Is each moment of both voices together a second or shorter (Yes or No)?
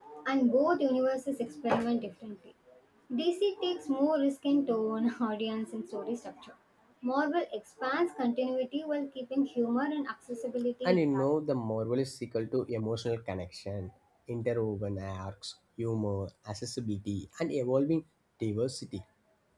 Yes